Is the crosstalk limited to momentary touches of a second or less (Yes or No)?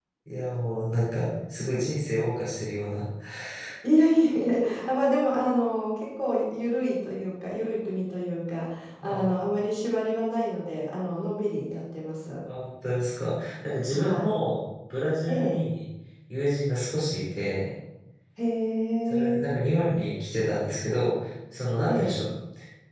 Yes